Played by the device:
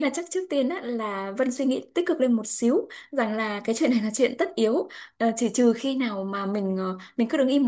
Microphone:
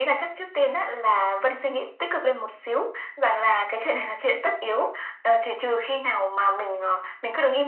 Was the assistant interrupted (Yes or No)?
No